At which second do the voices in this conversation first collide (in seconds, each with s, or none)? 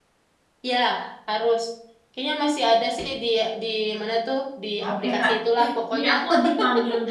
4.8 s